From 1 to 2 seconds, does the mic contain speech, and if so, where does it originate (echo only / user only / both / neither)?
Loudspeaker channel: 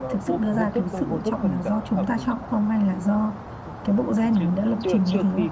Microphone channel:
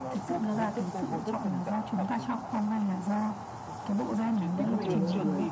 echo only